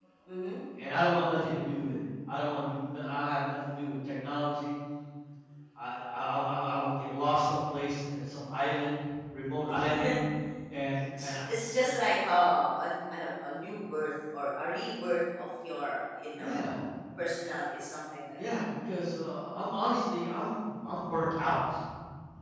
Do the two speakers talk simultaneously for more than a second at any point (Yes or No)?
No